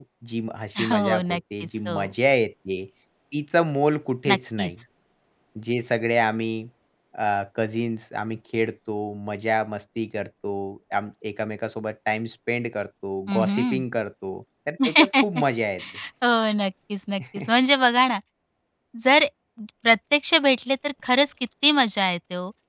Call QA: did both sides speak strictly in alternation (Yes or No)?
No